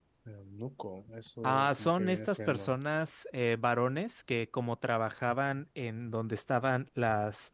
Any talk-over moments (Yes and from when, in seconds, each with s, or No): Yes, from 1.4 s